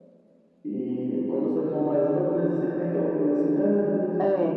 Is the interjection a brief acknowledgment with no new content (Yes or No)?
Yes